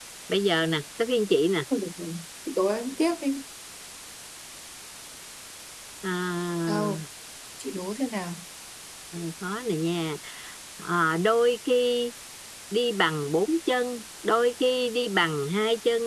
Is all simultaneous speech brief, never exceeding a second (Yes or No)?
Yes